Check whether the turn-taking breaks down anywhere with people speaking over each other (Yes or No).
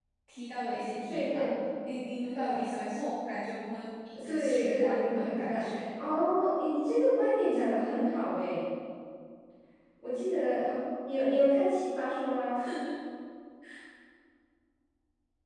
Yes